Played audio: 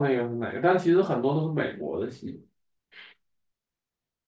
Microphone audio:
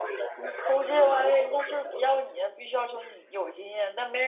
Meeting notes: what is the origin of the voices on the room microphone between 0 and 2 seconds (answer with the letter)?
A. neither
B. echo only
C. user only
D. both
D